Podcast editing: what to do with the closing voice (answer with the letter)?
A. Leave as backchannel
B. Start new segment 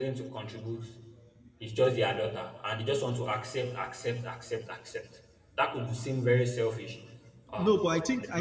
B